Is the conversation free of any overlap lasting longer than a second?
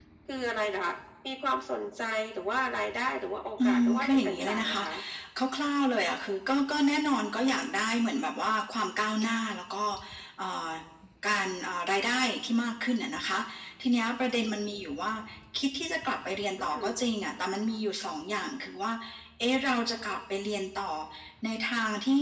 No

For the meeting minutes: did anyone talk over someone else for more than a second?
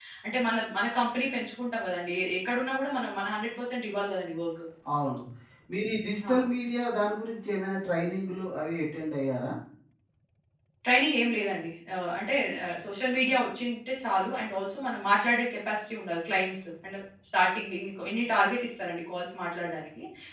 No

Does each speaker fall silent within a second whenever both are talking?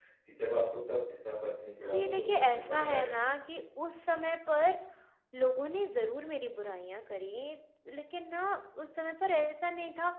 No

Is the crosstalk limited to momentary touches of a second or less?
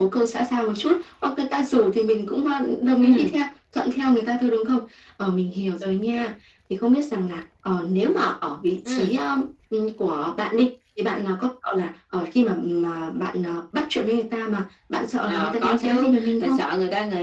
No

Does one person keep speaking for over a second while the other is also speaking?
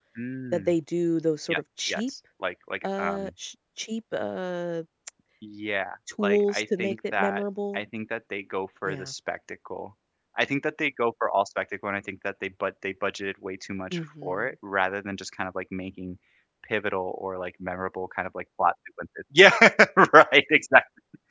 Yes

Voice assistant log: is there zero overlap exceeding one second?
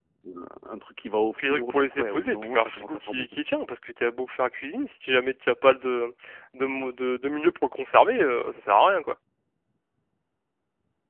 No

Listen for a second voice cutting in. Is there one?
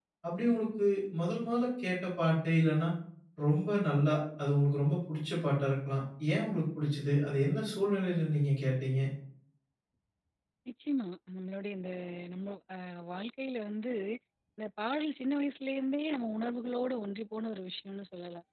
No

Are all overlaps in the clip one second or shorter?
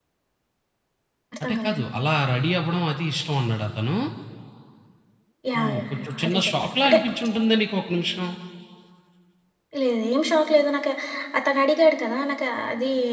No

